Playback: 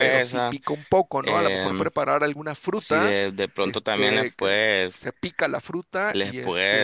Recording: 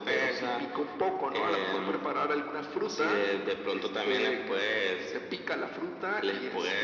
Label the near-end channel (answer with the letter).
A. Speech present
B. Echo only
B